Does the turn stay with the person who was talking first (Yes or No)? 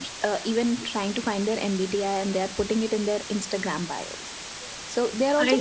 Yes